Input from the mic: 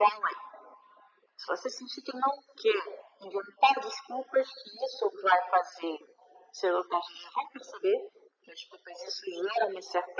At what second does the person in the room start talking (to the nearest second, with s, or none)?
none